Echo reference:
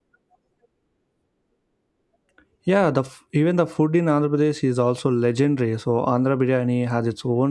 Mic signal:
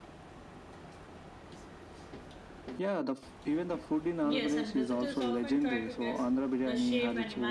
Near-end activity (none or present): present